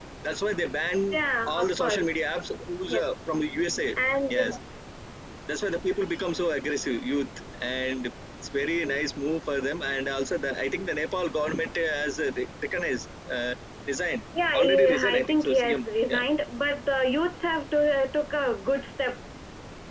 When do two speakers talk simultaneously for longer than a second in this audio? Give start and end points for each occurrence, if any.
14.6-16.2

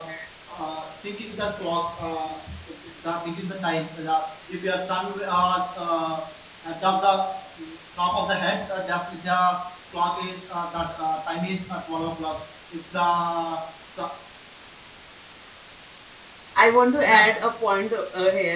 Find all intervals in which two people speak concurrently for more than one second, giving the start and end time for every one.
none

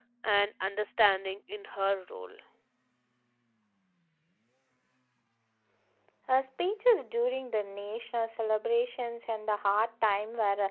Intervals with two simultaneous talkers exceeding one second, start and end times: none

